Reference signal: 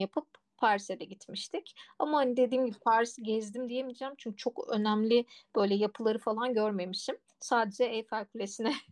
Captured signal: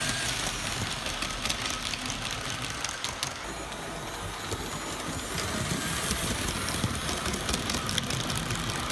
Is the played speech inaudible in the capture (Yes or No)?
Yes